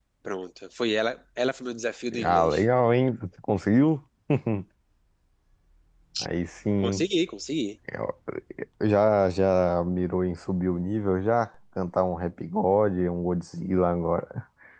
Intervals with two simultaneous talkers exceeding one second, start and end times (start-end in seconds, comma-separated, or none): none